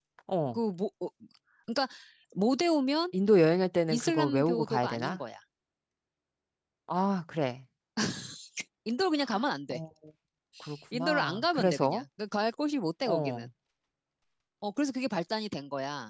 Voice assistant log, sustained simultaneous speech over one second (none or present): present